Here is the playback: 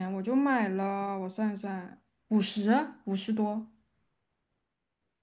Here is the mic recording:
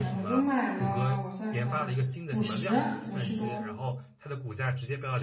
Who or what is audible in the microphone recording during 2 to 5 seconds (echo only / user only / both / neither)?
both